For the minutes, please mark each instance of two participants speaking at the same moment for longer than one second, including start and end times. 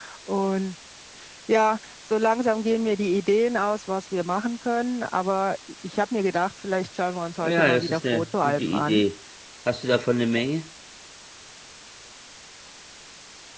7.4-9.0

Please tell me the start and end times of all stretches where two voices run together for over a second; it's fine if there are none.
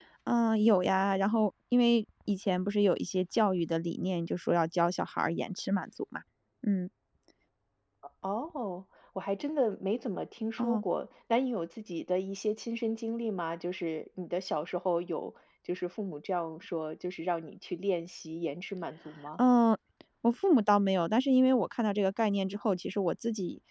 none

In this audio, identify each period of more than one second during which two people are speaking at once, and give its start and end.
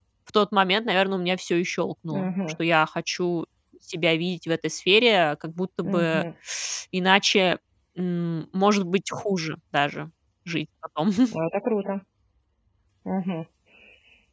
none

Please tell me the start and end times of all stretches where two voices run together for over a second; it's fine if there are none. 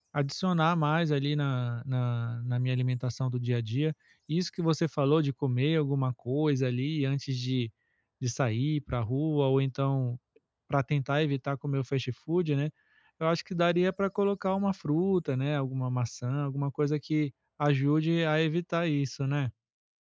none

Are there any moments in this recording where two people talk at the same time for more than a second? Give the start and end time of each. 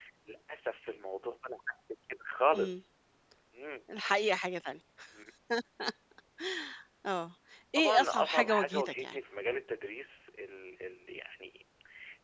7.8-9.2

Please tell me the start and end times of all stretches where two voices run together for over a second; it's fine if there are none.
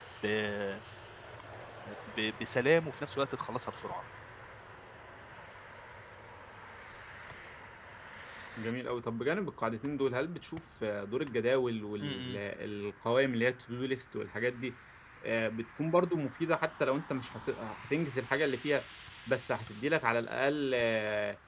none

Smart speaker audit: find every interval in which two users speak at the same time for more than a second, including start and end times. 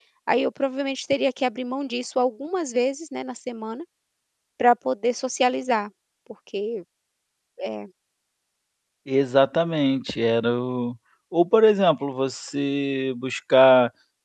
none

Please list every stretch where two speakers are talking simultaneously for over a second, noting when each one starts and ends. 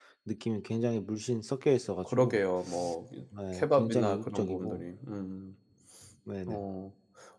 3.5-4.8

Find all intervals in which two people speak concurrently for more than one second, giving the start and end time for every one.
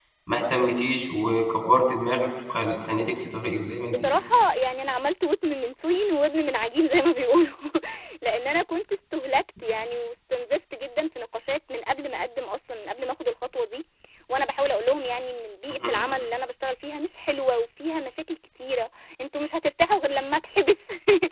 none

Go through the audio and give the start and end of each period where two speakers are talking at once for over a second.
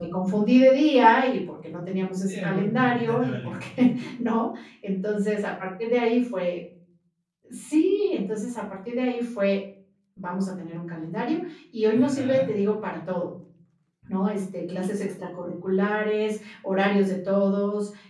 2.3-3.9

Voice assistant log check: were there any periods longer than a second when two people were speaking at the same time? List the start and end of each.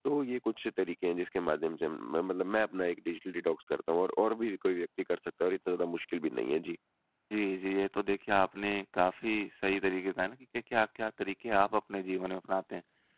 none

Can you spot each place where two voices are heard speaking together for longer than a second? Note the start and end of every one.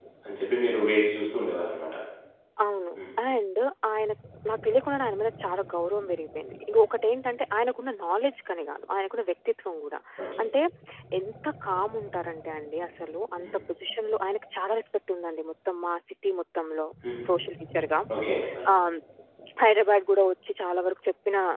none

